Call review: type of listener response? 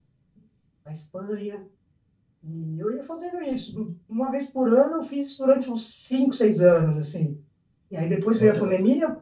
listening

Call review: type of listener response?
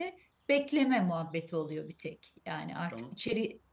listening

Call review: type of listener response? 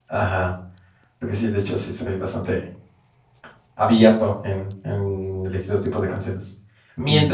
listening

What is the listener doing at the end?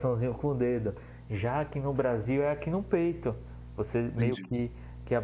listening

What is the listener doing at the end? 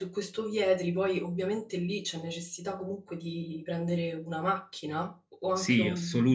taking over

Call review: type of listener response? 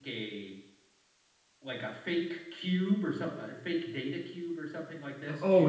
taking over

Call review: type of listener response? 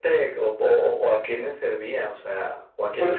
taking over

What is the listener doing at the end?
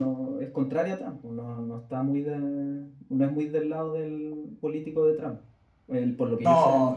taking over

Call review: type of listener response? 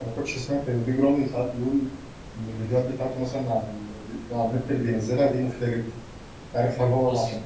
listening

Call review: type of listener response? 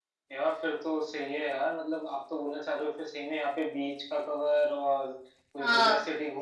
listening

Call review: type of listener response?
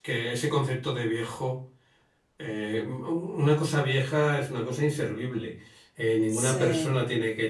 listening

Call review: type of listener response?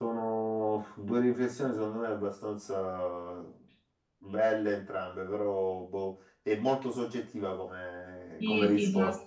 taking over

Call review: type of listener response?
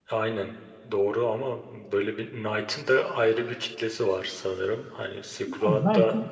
taking over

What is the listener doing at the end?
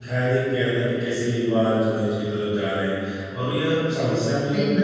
listening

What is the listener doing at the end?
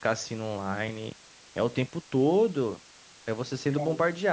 listening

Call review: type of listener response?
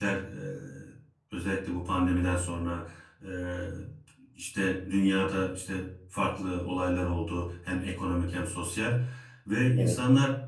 listening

